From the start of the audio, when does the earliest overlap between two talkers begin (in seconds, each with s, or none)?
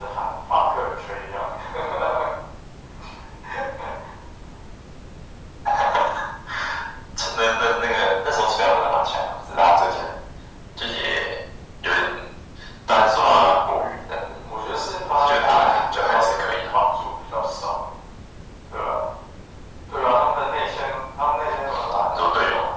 15.0 s